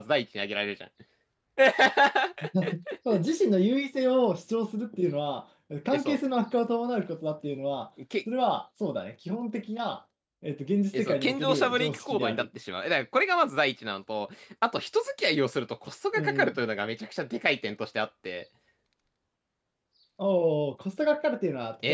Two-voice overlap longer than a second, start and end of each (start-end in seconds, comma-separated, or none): 10.9-12.4